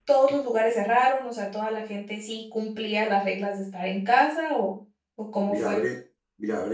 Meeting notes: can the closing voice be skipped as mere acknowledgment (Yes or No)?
No